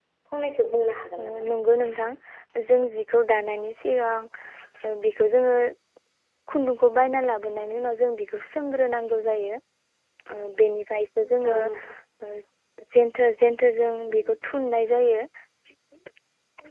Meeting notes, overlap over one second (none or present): none